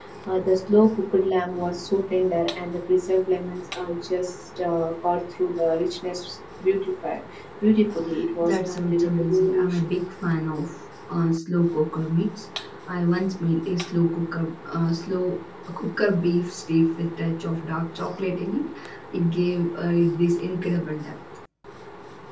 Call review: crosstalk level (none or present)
present